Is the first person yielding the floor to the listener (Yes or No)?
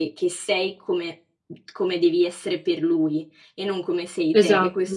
No